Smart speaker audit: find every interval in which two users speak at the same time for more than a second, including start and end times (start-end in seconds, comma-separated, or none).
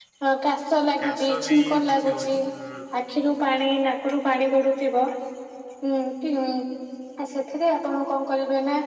1.0-2.4